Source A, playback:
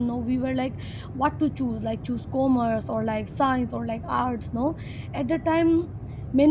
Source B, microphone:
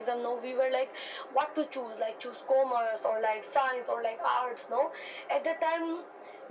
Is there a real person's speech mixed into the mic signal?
No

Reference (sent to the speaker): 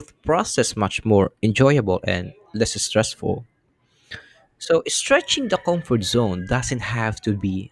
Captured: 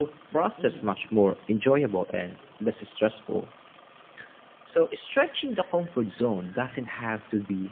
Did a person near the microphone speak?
Yes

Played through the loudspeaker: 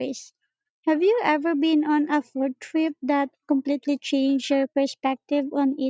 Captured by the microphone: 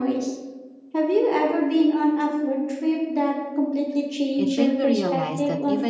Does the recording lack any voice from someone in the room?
No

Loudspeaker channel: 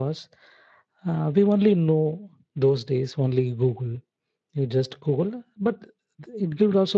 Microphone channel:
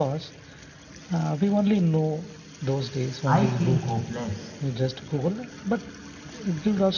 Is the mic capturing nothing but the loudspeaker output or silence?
No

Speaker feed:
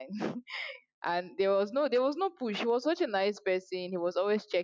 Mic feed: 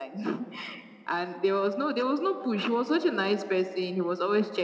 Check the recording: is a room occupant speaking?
No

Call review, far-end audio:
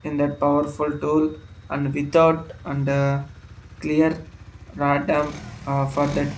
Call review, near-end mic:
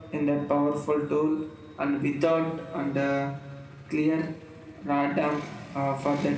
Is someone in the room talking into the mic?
No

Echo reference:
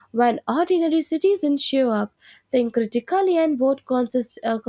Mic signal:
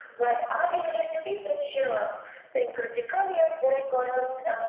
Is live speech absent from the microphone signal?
No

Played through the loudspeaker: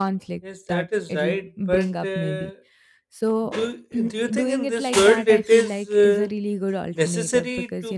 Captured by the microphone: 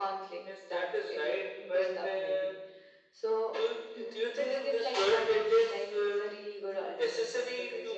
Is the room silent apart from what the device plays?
Yes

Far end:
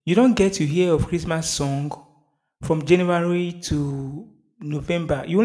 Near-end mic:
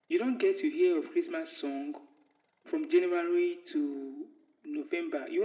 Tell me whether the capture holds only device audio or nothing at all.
Yes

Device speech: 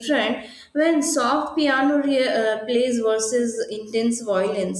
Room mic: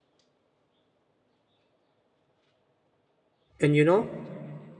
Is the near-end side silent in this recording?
No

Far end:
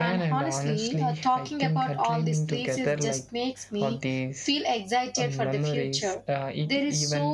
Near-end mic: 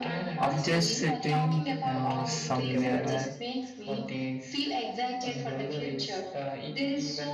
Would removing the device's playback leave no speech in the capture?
No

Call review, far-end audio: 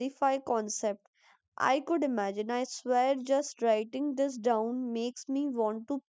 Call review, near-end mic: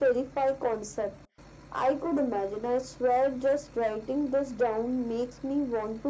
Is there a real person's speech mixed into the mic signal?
No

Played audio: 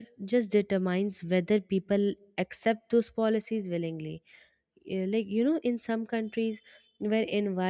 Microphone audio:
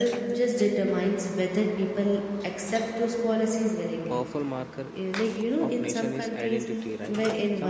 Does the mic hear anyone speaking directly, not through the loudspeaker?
Yes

